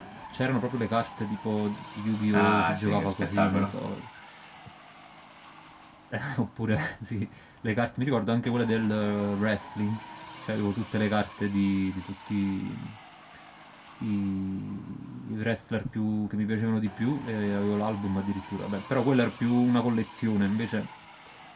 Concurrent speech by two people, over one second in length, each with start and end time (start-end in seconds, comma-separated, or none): 2.3-3.7